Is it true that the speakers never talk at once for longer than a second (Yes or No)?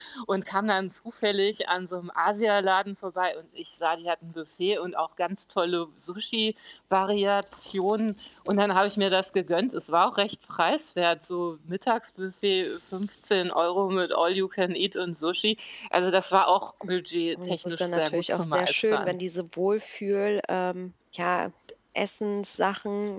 No